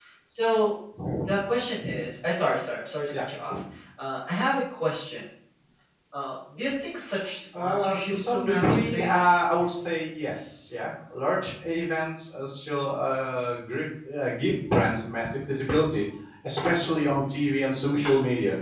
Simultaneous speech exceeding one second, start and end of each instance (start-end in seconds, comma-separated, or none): 7.6-9.1